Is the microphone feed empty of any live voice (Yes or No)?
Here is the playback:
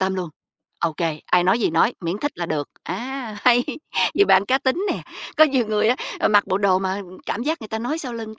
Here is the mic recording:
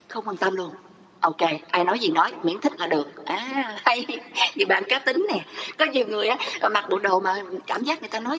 Yes